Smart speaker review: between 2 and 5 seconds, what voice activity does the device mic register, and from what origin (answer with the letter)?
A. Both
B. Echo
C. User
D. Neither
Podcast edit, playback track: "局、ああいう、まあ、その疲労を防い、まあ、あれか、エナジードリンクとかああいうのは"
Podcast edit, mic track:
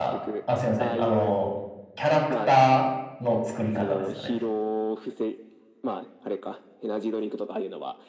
A